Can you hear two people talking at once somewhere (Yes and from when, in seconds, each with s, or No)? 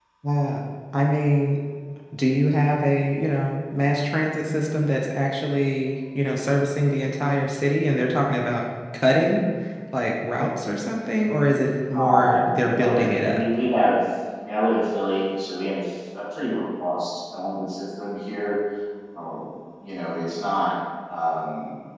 Yes, from 11.9 s